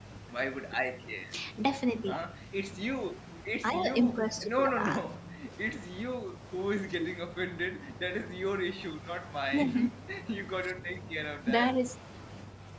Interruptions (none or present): present